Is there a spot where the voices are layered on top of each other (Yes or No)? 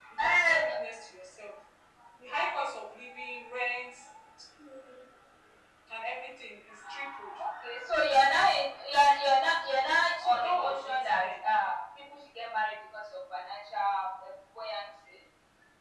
Yes